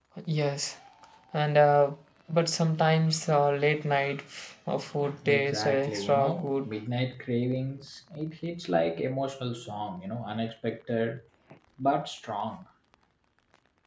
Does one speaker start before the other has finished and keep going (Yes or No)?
Yes